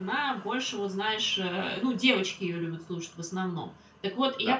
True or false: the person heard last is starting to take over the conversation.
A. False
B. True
A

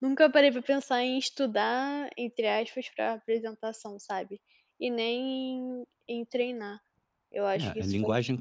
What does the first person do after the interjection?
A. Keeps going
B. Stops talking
B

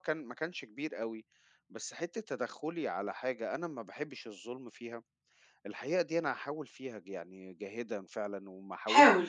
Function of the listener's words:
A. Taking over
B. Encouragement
B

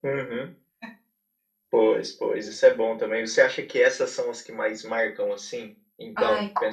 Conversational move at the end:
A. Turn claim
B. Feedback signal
A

